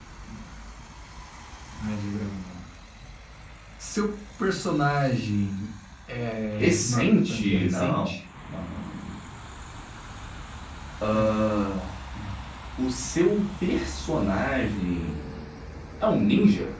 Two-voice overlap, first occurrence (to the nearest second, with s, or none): 7 s